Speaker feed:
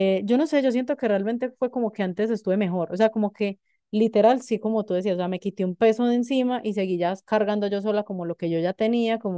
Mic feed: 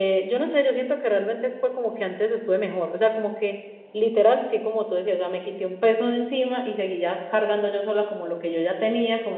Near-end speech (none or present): none